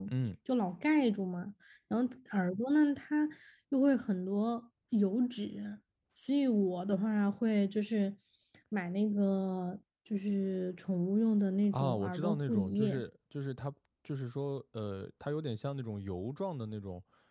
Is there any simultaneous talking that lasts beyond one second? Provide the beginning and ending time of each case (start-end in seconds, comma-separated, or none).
11.7-13.0